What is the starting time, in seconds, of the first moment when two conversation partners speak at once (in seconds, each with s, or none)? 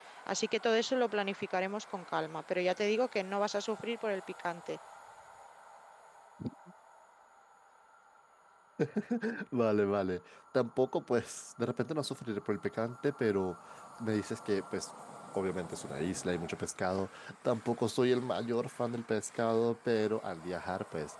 none